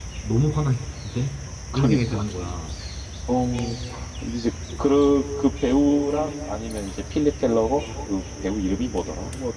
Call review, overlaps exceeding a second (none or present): none